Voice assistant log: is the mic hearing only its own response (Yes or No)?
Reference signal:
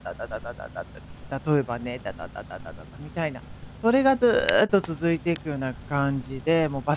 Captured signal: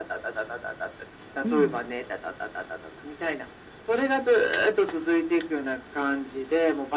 No